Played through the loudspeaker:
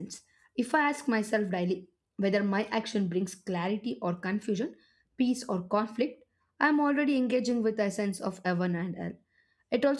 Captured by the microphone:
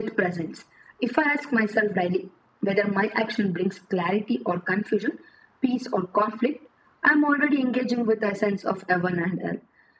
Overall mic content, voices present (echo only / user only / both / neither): echo only